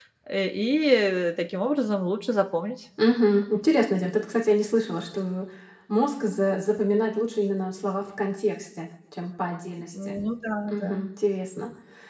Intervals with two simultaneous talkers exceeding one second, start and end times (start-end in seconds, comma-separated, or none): none